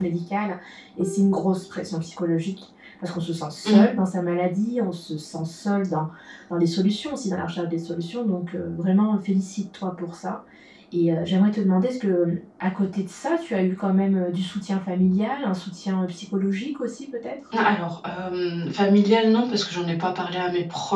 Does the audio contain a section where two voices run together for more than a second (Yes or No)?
No